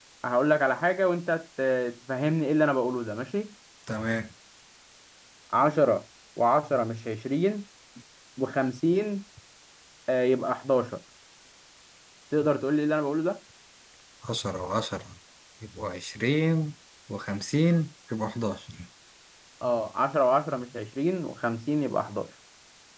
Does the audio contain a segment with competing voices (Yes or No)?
No